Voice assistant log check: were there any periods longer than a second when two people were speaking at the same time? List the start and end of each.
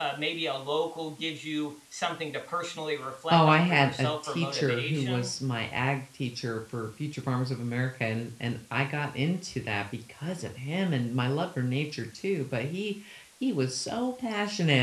3.3-5.3

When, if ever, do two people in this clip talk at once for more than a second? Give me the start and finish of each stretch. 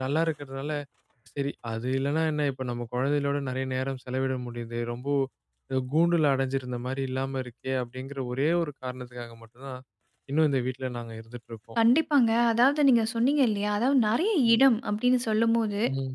none

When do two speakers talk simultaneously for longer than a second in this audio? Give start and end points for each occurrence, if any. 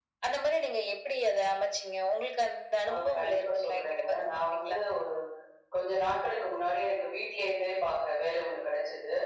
2.9-4.8

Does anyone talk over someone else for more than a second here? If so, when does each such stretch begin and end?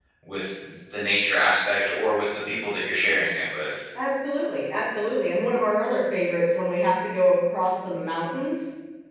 none

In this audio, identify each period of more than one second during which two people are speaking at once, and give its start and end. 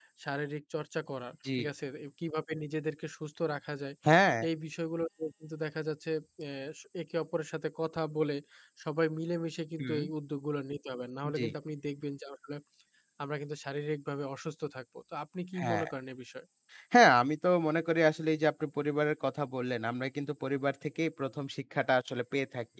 none

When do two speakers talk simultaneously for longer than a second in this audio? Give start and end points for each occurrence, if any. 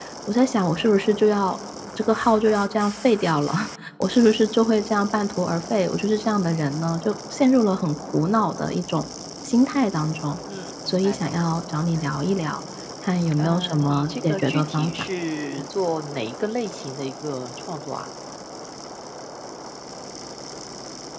13.4-14.9

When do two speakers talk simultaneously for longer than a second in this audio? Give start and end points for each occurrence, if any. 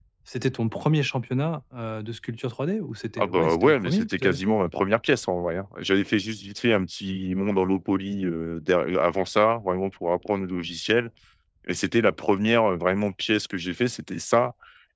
3.2-4.6

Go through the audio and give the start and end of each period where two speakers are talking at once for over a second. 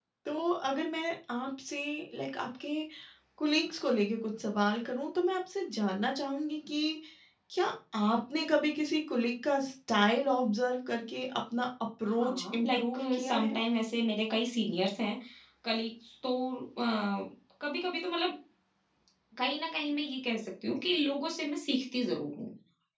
12.1-13.6

